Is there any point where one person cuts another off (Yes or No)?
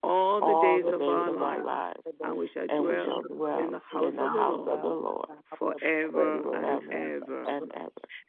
Yes